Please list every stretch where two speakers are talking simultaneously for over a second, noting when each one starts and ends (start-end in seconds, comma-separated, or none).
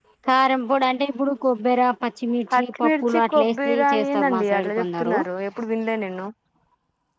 2.5-5.2